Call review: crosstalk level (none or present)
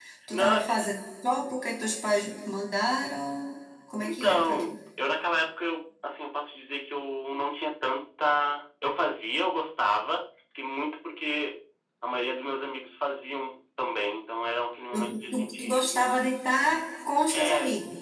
present